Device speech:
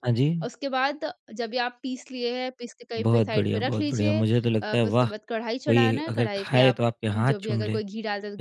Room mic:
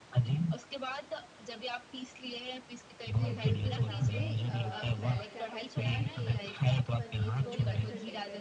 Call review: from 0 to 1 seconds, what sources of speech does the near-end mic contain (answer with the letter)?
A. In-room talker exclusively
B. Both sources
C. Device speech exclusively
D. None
C